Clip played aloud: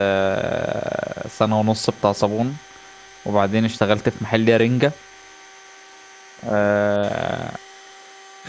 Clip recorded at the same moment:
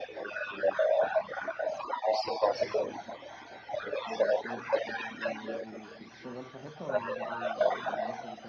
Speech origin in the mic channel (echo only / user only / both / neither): both